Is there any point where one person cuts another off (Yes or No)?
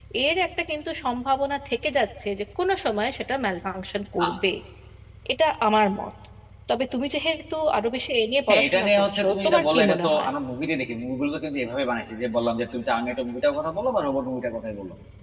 Yes